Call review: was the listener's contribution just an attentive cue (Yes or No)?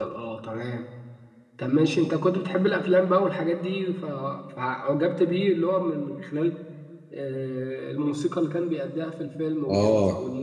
No